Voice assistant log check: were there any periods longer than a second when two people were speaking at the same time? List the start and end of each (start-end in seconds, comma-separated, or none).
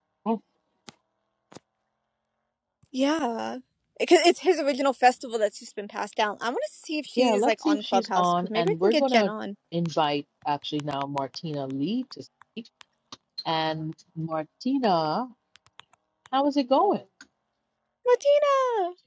7.2-9.3